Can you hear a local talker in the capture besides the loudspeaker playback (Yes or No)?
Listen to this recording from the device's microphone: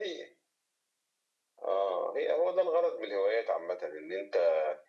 No